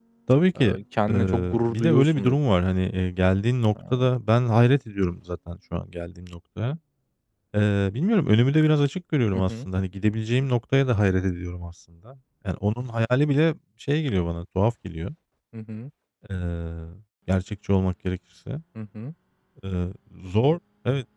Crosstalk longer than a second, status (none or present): present